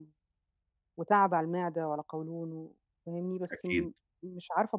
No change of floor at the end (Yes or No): Yes